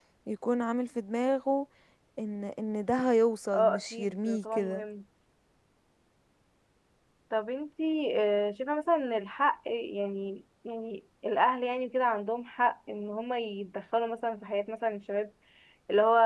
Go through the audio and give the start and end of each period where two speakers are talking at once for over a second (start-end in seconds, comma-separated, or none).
3.5-4.8